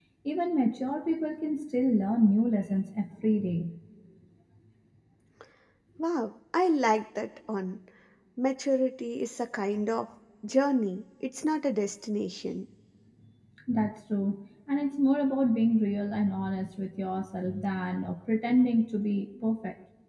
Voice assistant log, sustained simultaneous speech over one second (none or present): none